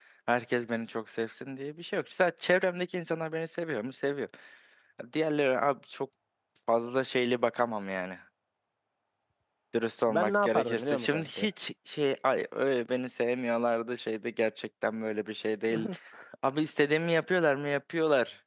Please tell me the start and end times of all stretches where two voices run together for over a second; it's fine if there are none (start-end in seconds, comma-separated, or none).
10.1-11.5